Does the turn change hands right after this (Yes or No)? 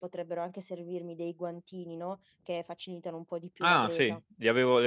Yes